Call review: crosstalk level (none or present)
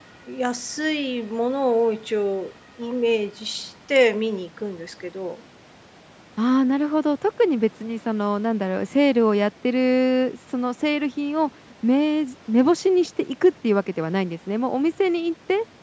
none